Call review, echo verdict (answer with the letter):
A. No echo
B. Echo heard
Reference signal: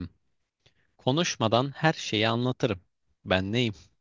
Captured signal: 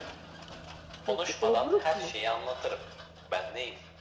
B